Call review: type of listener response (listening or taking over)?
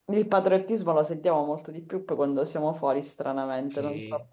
taking over